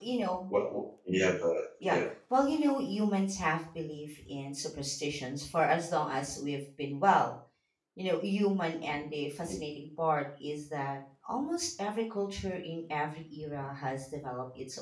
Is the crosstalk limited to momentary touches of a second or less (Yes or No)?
Yes